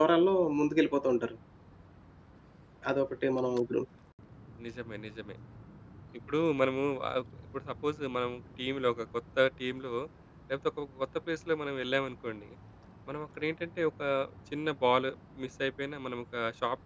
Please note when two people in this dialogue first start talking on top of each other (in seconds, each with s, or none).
none